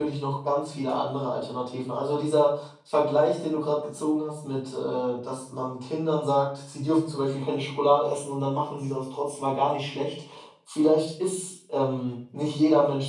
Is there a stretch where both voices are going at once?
No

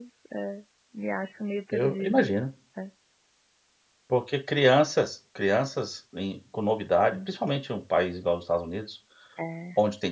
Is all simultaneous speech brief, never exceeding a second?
Yes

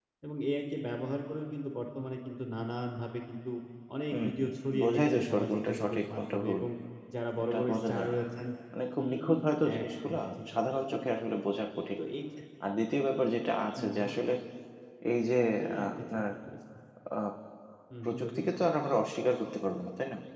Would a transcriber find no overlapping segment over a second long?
No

